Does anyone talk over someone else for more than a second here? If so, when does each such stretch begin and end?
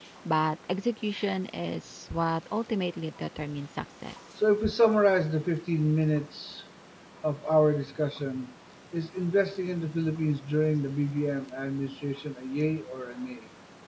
none

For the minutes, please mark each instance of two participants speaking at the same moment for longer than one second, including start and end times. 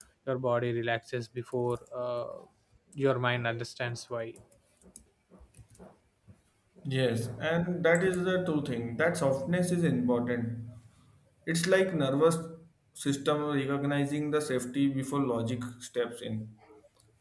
none

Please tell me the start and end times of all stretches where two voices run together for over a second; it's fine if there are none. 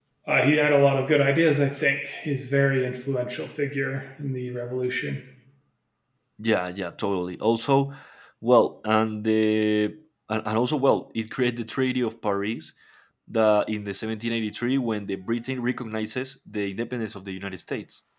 none

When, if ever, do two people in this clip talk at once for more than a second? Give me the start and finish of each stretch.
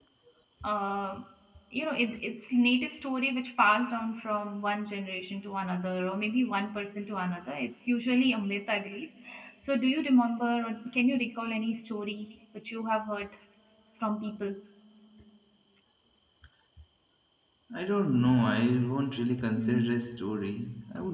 none

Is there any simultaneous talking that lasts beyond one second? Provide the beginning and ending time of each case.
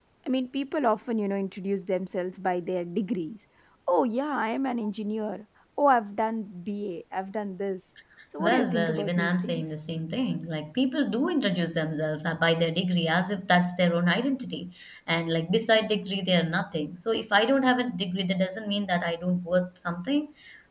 8.4-9.6

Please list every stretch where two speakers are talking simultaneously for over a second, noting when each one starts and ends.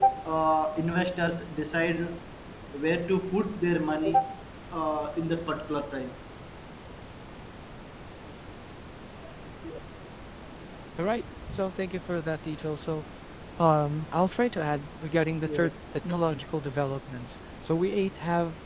none

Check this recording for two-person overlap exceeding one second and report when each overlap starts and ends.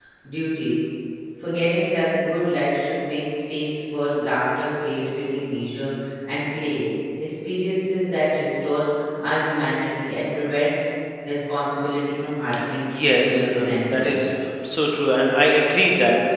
12.9-14.1

